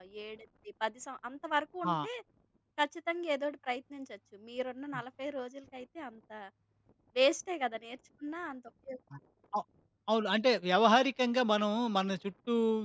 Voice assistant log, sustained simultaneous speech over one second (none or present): none